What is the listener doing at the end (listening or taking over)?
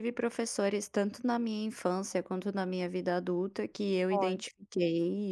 listening